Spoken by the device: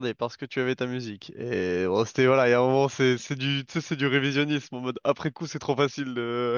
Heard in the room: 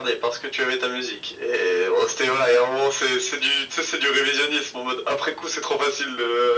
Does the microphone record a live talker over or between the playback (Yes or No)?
No